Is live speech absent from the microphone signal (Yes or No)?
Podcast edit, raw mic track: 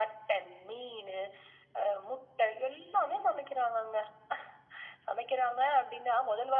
Yes